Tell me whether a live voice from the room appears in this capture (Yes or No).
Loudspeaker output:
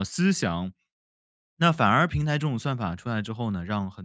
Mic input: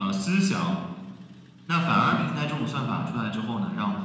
Yes